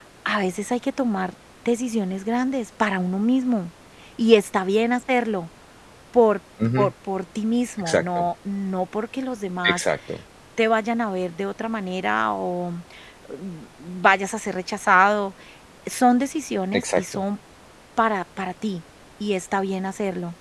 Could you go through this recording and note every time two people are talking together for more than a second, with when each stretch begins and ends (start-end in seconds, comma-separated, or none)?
none